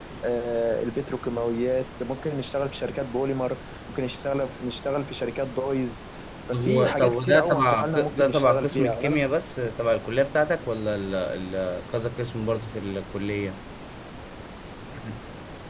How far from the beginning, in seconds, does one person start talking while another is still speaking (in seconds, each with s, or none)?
6.5 s